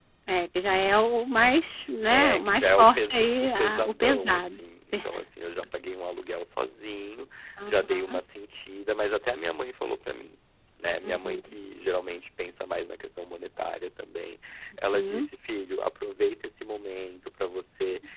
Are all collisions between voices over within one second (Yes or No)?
No